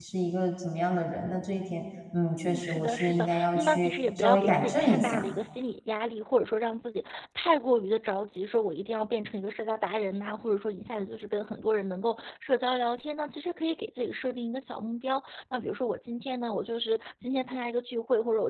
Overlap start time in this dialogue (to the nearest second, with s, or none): 2 s